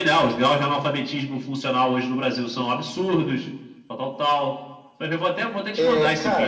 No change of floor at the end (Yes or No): No